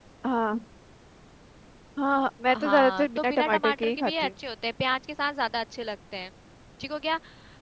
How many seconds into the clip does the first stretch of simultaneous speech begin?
2.5 s

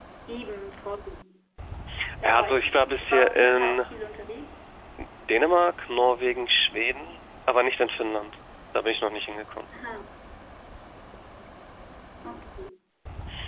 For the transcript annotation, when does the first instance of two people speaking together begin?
2.2 s

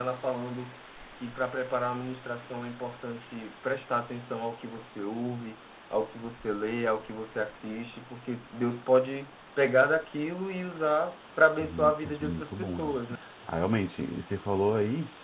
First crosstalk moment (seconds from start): 11.6 s

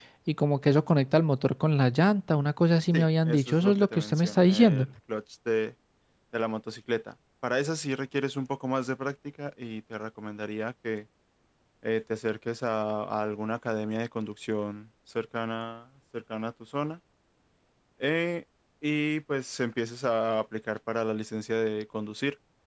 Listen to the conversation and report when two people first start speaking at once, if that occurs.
2.9 s

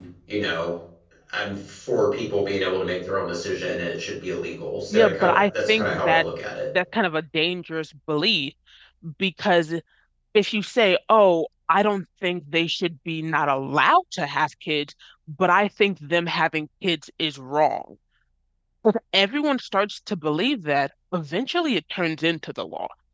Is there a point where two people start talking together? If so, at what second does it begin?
4.9 s

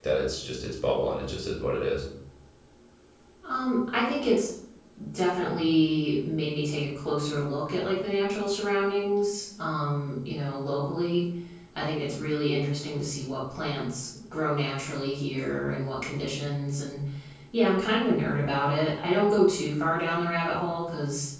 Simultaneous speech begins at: none

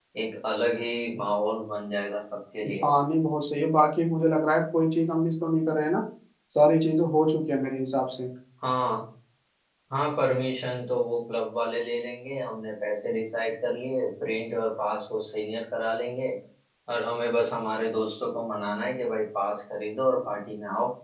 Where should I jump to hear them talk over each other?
none

